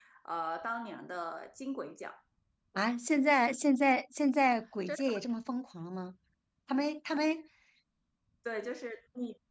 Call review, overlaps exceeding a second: none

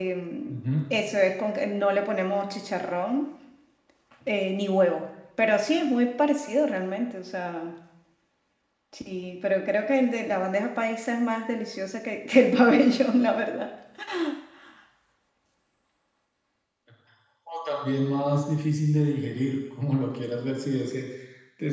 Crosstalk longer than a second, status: none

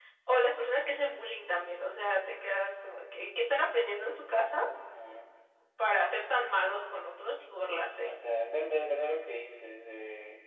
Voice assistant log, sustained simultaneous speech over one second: none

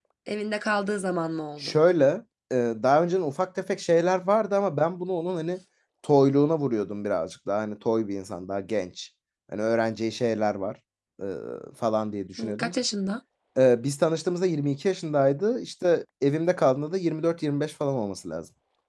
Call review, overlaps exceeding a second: none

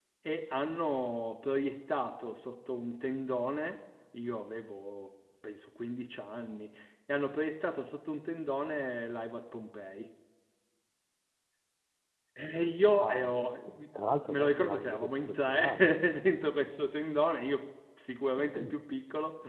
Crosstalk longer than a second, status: present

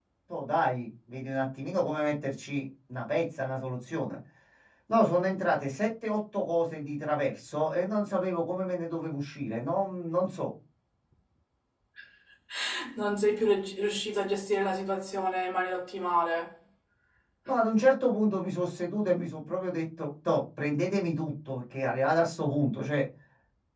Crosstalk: none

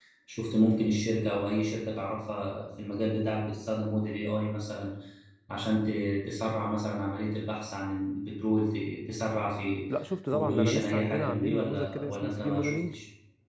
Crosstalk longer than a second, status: present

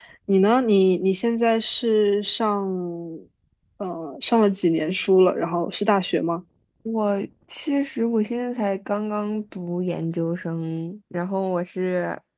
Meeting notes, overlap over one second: none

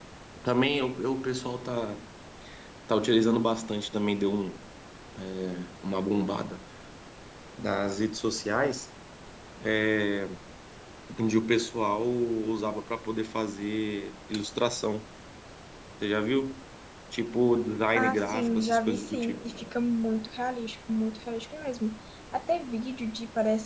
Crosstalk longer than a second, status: present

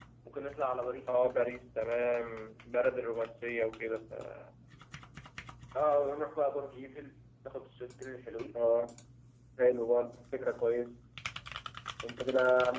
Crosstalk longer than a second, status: none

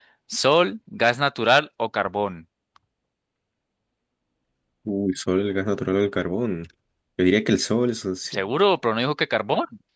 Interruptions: none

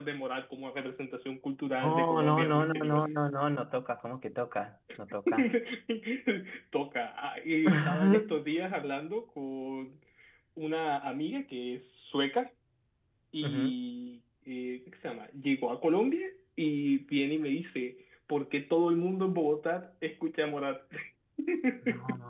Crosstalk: present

